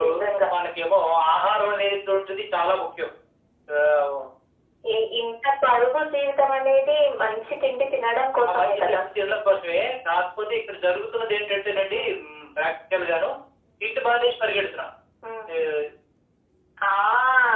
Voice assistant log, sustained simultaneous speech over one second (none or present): none